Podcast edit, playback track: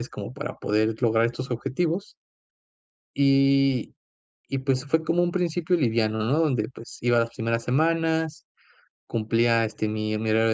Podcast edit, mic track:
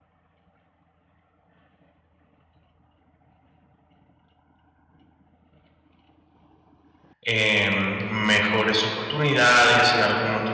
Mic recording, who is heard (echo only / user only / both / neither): user only